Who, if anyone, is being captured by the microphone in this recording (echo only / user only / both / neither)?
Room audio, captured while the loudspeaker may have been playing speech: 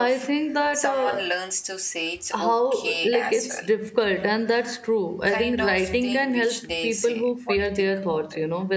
both